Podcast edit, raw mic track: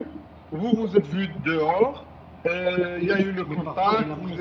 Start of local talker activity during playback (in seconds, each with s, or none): 3.4 s